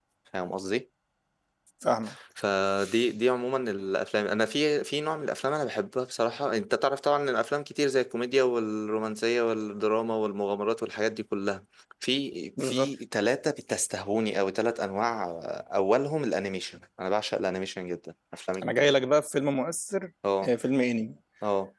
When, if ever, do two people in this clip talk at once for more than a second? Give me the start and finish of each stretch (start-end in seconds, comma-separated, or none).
none